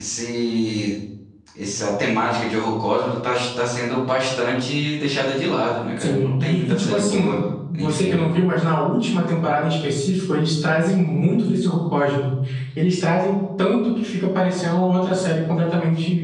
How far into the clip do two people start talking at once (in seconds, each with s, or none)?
6.0 s